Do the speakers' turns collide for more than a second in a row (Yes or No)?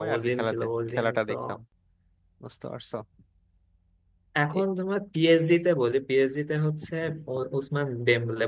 Yes